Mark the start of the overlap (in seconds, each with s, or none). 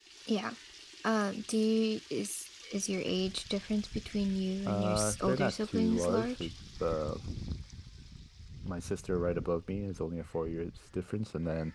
4.6 s